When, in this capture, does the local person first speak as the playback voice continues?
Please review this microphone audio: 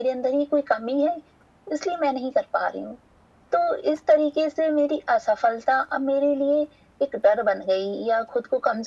none

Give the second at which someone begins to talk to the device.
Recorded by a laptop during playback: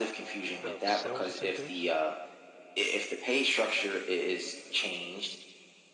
0.6 s

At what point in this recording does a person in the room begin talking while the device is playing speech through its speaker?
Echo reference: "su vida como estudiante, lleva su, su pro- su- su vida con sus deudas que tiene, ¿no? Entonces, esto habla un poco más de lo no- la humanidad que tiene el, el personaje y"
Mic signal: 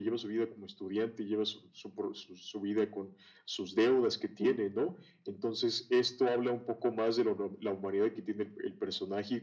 none

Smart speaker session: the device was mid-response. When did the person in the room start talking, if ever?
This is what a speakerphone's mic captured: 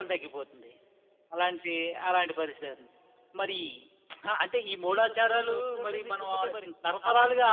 4.9 s

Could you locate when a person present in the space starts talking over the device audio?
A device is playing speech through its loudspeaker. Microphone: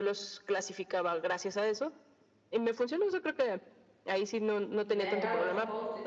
4.8 s

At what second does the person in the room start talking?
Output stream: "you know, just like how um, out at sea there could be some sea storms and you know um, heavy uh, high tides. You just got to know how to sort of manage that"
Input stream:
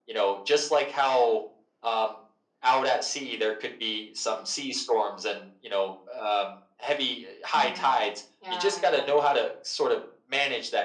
7.5 s

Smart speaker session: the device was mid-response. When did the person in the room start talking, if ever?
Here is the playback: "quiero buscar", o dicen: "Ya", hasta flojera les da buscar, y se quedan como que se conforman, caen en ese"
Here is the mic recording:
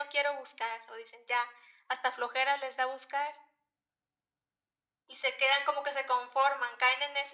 none

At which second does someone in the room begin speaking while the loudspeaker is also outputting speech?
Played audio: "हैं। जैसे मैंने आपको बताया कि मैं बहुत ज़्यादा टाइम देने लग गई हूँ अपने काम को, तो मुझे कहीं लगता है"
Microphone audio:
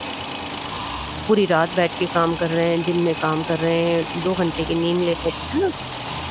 1.3 s

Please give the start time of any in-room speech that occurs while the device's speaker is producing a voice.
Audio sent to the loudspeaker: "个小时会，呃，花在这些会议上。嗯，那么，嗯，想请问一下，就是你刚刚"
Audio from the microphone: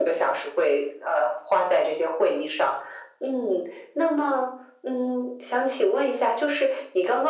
none

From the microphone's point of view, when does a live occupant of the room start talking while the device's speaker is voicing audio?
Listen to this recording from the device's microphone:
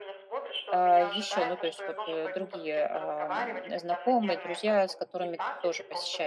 0.7 s

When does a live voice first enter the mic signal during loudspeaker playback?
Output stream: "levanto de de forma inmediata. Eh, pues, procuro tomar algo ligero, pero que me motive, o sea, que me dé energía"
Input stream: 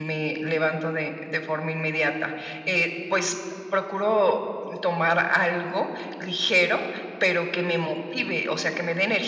none

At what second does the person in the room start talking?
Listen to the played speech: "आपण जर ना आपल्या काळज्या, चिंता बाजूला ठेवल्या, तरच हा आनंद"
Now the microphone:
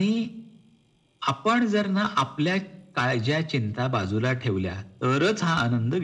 none

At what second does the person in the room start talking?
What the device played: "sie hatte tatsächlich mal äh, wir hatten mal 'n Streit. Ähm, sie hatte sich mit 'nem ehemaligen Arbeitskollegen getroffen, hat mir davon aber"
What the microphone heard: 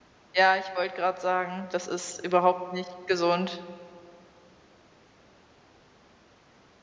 0.3 s

